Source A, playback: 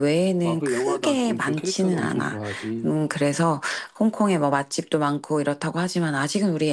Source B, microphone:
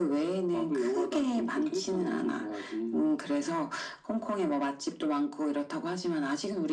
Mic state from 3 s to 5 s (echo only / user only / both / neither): echo only